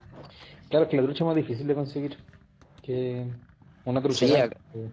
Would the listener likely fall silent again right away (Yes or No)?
No